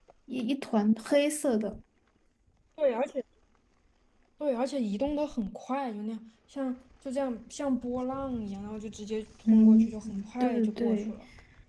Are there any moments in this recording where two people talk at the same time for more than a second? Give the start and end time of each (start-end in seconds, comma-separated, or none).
9.5-11.1